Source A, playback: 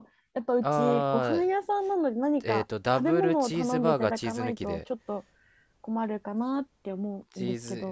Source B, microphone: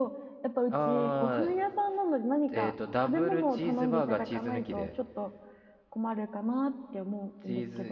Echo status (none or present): present